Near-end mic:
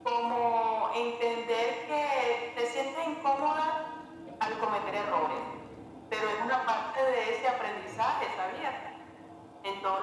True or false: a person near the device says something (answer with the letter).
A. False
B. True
A